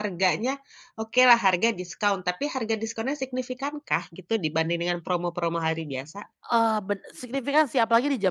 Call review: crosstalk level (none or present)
none